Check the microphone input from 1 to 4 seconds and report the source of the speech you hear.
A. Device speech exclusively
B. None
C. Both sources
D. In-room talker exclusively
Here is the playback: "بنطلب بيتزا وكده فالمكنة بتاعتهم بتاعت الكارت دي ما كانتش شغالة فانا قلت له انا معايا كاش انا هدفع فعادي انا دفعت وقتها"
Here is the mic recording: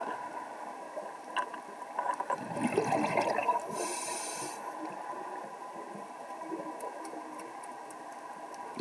B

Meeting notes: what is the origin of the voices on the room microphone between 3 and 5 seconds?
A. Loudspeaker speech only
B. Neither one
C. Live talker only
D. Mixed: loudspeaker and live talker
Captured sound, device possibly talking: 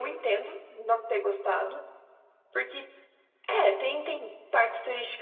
A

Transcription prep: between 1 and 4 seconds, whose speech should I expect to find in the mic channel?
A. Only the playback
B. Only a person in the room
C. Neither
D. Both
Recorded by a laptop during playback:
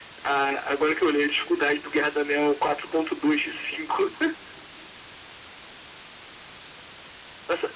A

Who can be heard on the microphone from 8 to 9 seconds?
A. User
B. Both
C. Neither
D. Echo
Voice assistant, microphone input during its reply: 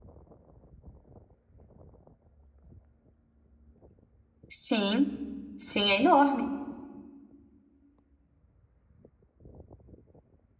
C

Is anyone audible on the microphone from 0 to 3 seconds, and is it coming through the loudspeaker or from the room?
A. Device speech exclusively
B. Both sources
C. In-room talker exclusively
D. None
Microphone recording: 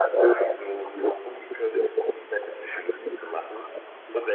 A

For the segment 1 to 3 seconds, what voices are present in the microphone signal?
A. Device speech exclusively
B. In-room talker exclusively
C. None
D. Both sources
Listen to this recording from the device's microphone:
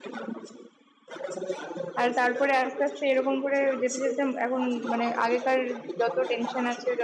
D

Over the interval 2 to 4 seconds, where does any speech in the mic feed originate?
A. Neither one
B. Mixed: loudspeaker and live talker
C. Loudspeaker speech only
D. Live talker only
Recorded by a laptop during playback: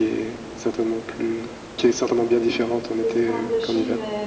B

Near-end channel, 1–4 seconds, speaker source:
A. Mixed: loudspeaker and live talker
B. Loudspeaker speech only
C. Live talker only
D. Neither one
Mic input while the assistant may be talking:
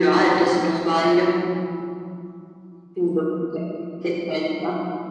B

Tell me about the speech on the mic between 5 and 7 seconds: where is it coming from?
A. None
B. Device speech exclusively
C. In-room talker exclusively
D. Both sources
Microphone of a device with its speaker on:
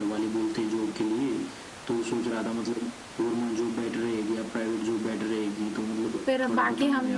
D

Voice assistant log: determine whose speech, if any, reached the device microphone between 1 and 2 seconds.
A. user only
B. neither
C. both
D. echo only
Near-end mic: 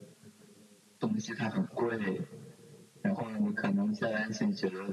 D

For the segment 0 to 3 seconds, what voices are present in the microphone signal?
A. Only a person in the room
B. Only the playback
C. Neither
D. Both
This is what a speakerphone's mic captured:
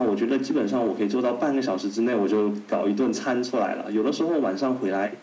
B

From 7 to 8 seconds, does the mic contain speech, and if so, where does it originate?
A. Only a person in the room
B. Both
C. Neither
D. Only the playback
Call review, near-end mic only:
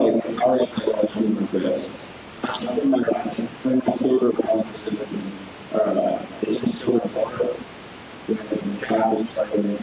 D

